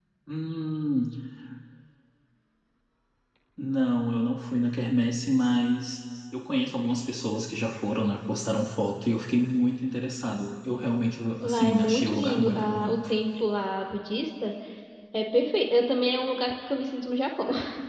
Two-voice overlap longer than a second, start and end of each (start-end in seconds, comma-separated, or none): 11.4-13.0